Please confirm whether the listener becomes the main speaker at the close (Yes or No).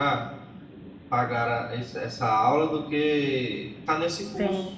Yes